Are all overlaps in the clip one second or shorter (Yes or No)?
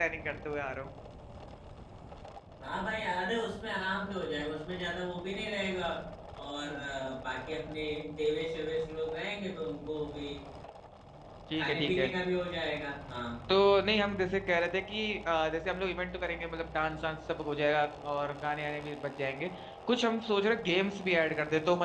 Yes